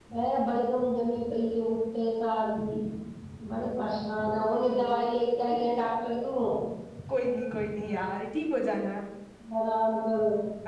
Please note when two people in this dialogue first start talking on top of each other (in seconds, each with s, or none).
none